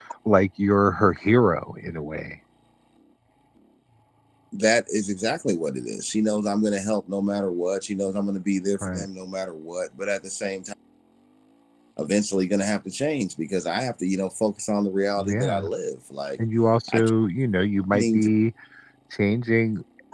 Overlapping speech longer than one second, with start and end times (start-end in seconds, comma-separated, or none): none